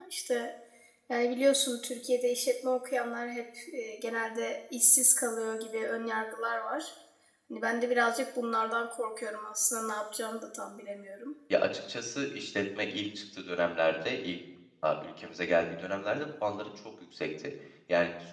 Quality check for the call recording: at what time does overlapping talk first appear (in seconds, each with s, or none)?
none